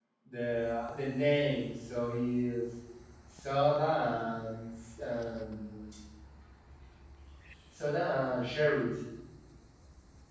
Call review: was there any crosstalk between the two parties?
No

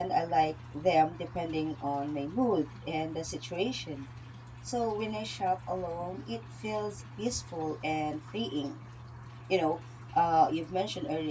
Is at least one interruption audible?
No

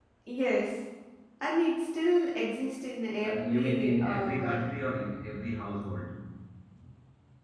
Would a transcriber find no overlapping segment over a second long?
No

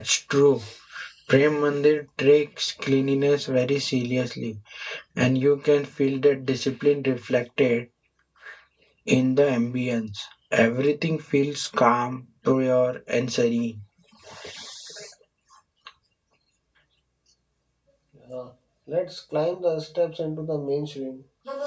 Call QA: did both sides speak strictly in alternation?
Yes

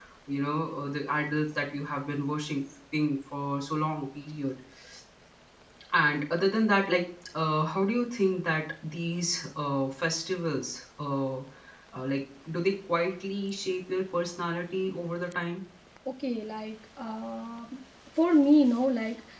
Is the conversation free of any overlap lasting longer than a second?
Yes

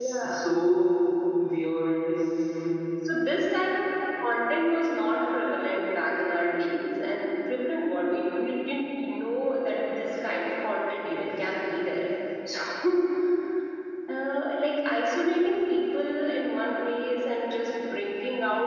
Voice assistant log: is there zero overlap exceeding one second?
Yes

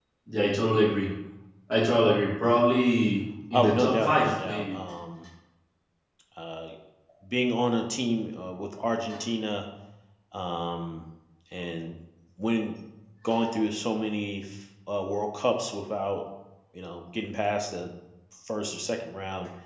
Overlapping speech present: Yes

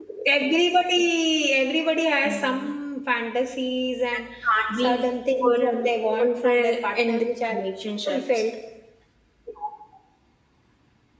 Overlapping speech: Yes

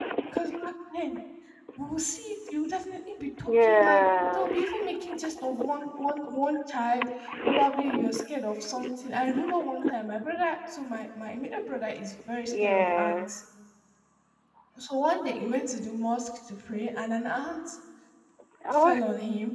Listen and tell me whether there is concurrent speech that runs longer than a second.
Yes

